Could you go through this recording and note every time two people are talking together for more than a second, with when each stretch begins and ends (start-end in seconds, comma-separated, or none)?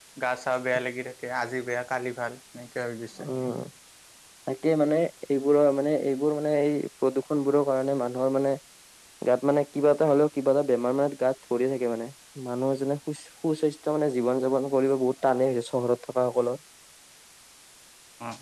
none